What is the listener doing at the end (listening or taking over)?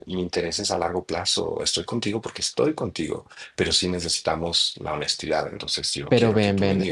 taking over